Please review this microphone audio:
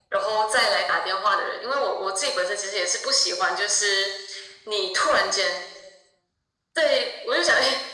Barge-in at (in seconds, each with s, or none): none